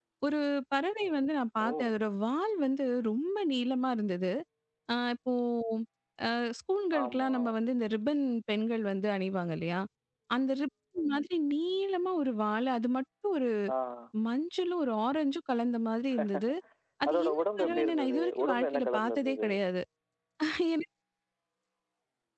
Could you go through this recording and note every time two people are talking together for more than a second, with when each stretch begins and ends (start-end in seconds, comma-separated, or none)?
17.1-19.5